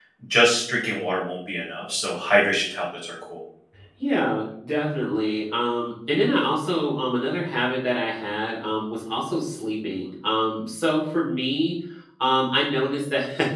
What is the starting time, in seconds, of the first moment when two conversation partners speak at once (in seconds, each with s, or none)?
none